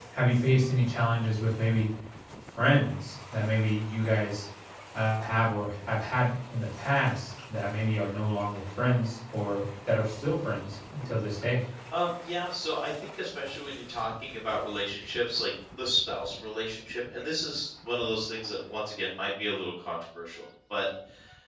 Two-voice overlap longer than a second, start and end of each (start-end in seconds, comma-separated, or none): none